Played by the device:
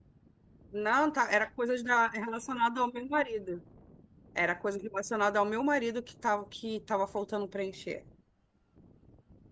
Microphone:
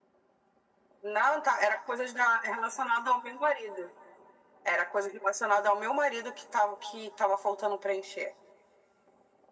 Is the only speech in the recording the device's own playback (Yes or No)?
Yes